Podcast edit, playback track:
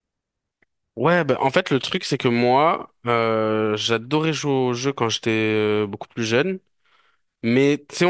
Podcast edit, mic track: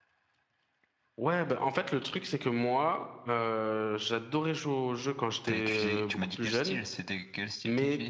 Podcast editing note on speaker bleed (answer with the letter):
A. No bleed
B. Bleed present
B